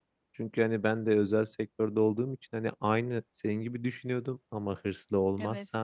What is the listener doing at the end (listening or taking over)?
listening